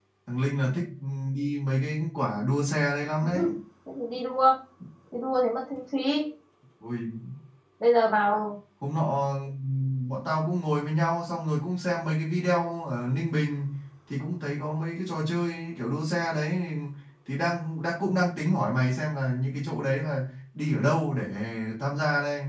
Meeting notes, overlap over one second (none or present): none